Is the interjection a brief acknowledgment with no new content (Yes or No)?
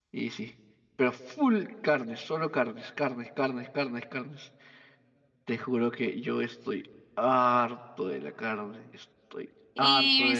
No